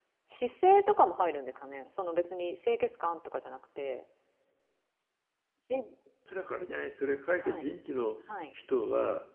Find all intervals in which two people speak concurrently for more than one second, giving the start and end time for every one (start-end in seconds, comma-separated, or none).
none